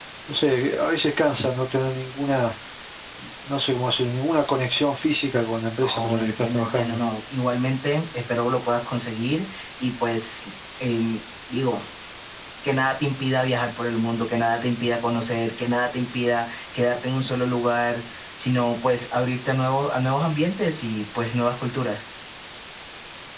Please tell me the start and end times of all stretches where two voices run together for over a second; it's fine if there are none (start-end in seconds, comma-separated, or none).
5.8-7.0